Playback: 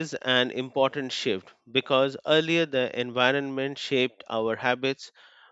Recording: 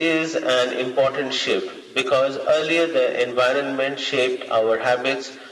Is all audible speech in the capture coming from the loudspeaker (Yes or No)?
Yes